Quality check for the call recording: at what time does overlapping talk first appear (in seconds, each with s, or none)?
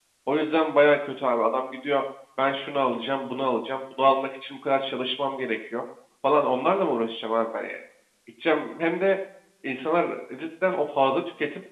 none